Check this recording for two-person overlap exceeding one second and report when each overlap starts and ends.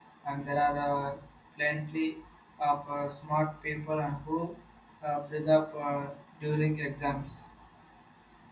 none

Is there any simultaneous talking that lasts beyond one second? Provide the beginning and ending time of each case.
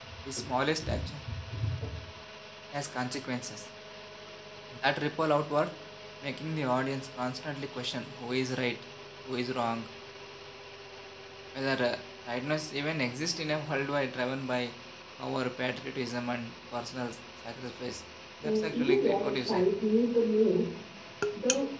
18.4-19.6

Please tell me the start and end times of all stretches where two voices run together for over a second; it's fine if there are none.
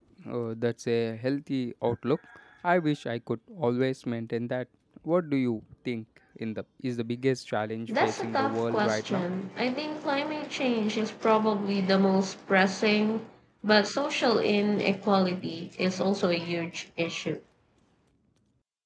7.9-9.3

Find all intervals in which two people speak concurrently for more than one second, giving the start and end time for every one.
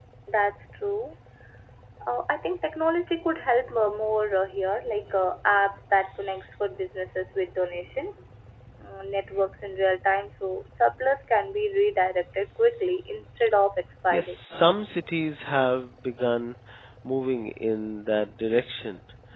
none

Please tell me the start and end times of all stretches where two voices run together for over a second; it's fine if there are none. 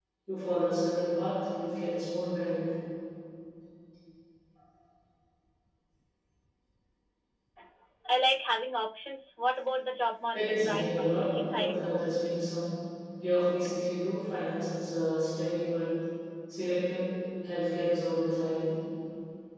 10.3-12.2

